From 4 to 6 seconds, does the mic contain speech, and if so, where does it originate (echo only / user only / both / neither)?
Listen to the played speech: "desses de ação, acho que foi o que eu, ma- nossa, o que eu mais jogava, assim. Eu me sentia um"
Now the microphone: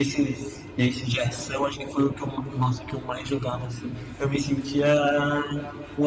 echo only